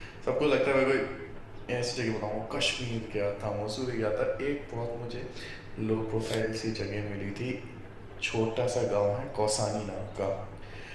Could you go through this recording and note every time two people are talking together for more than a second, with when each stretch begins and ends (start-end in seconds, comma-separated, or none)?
none